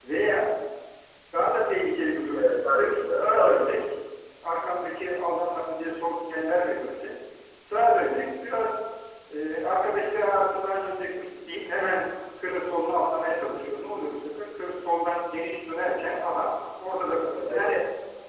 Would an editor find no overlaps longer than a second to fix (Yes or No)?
No